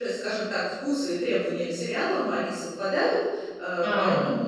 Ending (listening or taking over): listening